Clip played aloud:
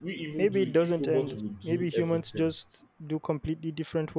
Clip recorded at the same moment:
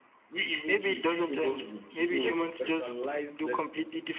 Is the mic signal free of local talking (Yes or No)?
No